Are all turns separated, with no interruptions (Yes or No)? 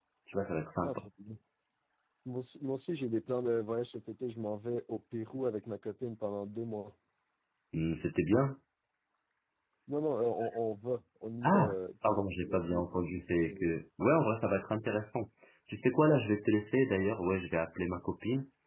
No